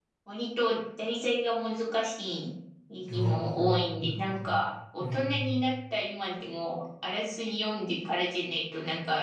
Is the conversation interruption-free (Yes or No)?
No